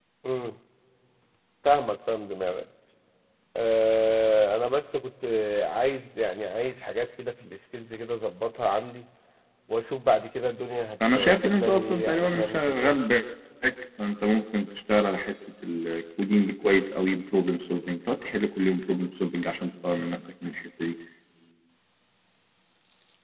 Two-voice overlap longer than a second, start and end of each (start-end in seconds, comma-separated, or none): 11.2-12.9